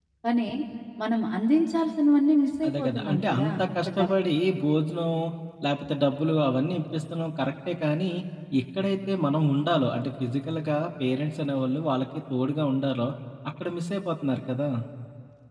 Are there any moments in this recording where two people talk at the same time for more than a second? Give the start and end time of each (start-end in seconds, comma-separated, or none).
2.7-4.1